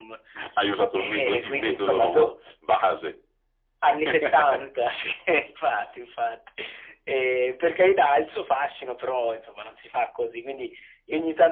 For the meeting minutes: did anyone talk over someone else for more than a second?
Yes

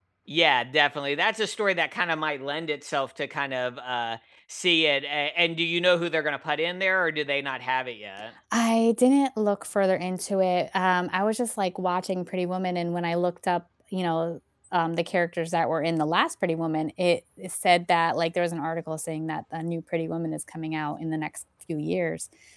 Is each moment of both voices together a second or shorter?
Yes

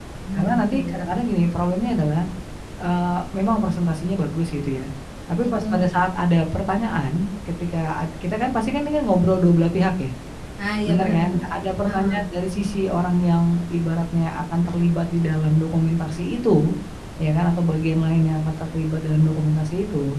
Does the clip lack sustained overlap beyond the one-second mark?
No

